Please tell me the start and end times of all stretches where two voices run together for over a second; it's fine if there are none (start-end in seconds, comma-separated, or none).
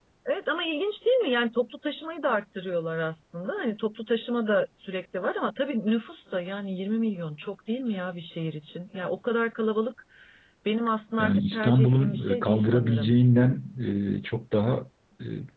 11.2-13.1